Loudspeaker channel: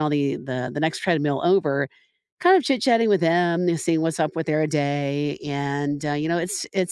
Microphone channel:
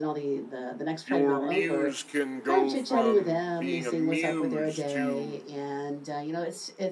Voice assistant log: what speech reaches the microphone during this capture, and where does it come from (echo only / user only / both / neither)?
both